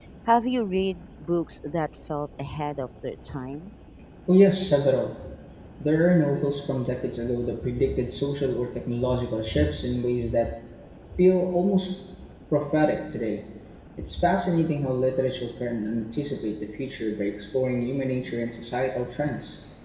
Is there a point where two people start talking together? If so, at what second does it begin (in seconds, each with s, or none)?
none